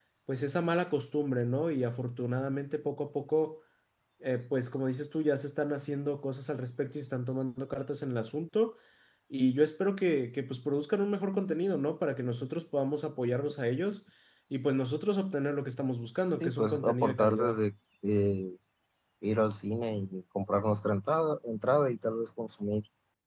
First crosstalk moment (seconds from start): 16.4 s

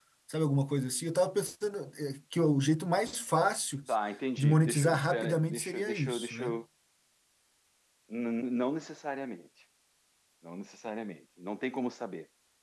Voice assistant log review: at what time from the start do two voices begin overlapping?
4.4 s

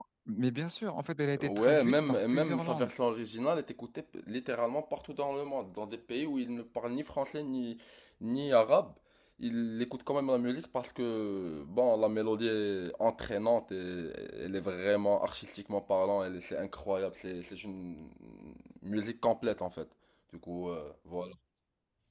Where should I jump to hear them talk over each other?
1.3 s

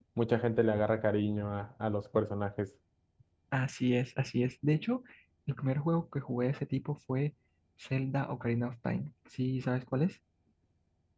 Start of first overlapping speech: none

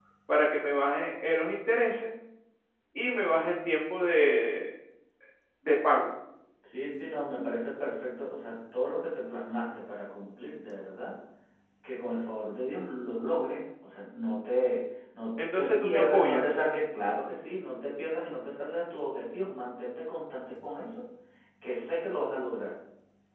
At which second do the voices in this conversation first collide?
15.4 s

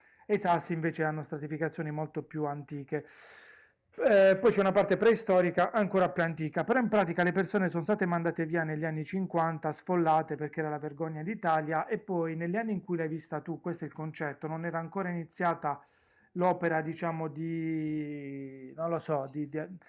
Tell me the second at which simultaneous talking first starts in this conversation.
none

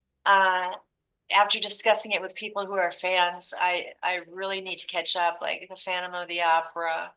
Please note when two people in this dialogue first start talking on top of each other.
none

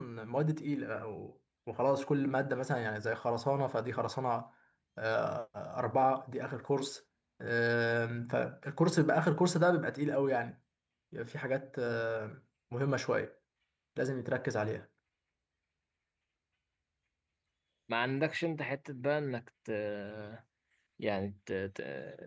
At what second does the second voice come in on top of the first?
none

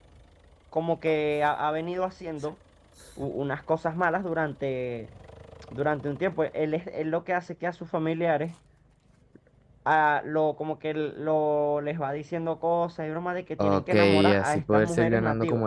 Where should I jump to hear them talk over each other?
13.6 s

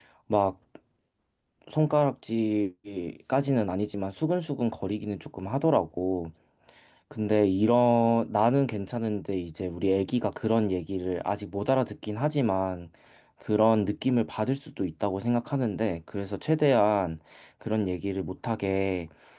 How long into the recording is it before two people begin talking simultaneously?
none

